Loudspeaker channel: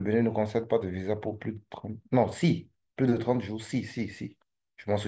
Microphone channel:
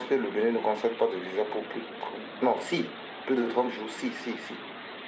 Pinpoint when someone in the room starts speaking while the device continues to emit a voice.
none

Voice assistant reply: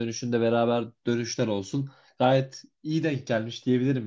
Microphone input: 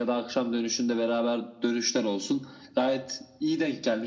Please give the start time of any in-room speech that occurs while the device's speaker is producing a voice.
none

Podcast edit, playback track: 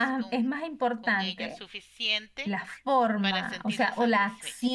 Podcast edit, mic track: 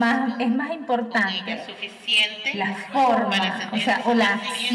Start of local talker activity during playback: 2.7 s

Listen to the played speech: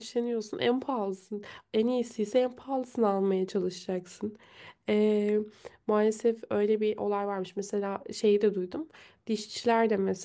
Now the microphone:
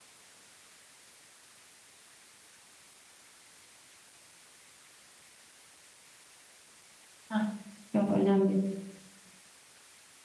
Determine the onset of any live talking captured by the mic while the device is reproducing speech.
7.3 s

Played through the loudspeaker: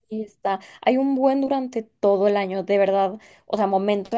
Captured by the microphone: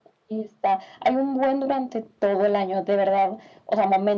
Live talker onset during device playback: none

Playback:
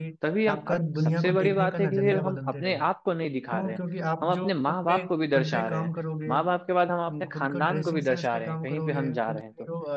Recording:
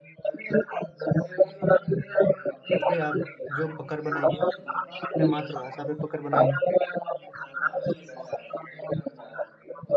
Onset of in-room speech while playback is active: 2.8 s

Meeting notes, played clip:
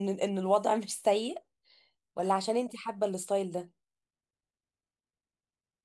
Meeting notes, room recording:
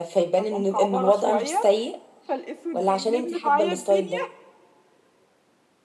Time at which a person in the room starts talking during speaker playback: 0.3 s

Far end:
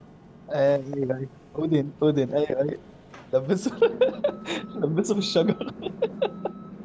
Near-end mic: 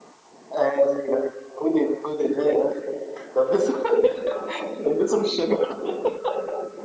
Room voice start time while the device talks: none

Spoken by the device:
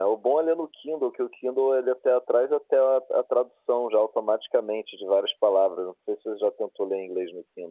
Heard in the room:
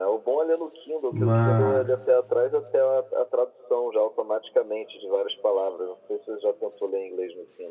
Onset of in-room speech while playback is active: 1.1 s

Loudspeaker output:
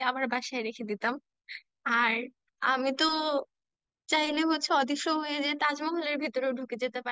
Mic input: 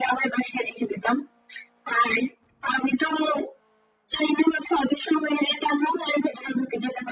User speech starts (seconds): none

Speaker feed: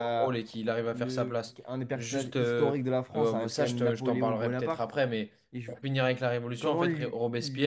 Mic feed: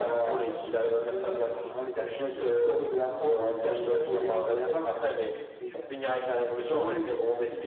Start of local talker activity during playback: 1.4 s

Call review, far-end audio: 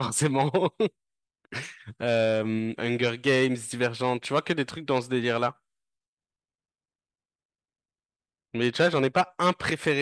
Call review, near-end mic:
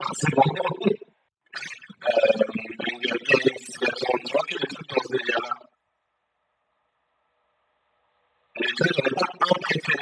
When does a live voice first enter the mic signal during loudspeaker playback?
none

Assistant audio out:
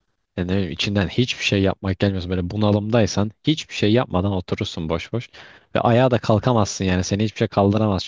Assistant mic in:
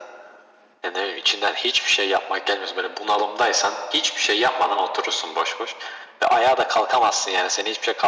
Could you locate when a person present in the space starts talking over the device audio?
none

